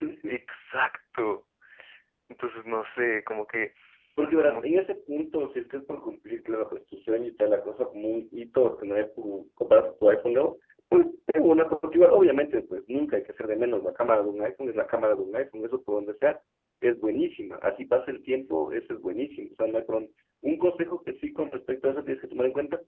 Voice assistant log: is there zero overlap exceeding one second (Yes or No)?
Yes